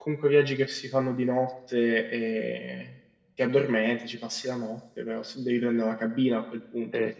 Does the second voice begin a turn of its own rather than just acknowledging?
No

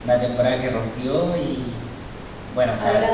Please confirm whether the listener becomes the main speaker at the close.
No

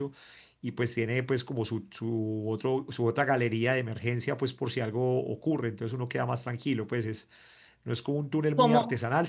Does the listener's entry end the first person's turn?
No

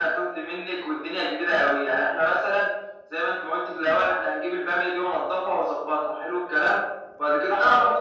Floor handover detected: No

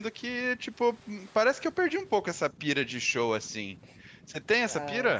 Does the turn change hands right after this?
Yes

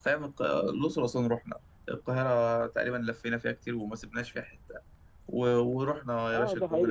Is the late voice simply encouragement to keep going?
No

